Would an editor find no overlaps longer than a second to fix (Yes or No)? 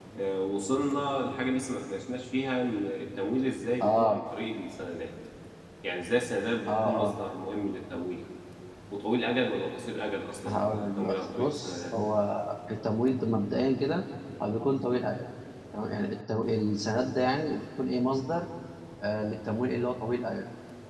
No